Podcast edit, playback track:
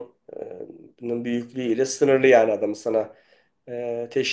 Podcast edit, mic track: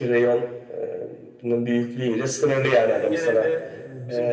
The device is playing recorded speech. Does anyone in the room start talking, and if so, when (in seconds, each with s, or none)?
2.8 s